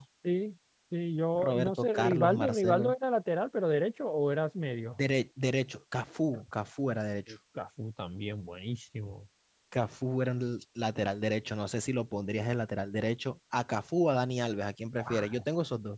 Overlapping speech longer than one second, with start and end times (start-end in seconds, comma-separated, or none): 1.4-2.9